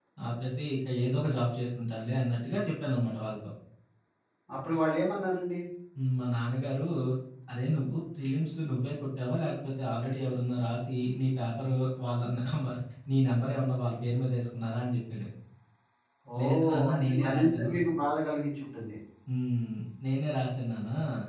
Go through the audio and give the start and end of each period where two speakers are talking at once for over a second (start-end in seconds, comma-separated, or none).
16.4-17.7